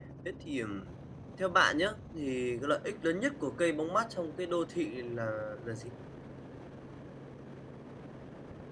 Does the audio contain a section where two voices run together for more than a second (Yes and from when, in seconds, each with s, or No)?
No